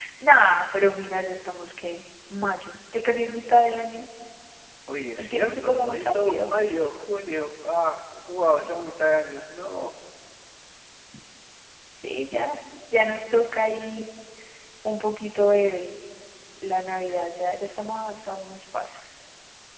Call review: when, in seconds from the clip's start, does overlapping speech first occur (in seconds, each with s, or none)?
5.2 s